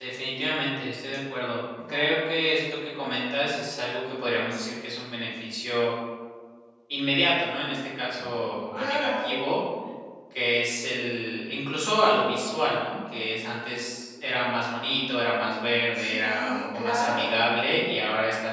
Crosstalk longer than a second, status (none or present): present